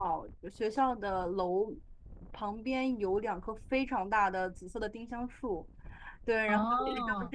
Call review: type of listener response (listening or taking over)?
listening